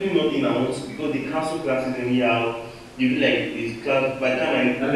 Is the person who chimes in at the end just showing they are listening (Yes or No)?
Yes